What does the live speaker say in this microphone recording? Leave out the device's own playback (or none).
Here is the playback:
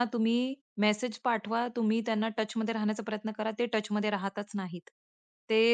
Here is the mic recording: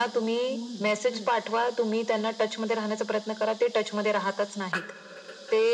हो ना. खरंच.